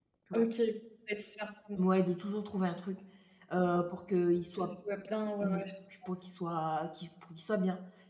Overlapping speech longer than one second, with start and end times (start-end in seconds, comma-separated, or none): none